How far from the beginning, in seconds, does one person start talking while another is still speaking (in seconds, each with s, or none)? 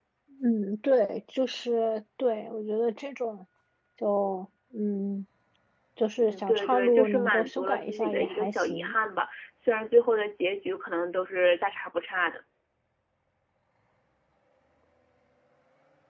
6.2 s